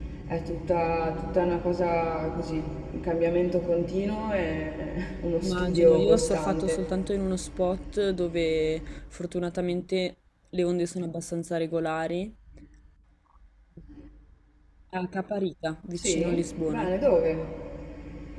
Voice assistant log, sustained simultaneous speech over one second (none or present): present